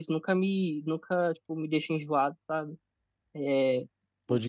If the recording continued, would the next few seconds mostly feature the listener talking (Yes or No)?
No